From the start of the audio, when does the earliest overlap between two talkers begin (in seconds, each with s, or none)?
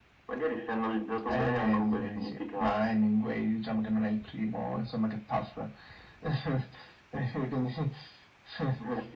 1.3 s